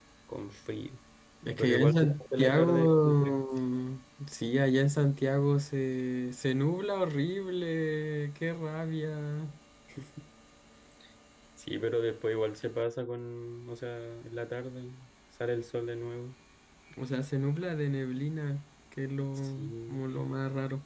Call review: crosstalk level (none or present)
present